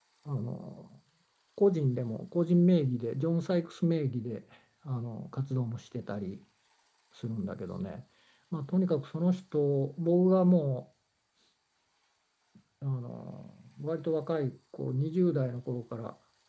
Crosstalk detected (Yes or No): No